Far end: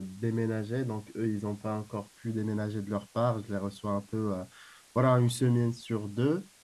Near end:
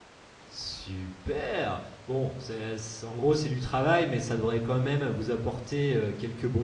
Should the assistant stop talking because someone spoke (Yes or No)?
Yes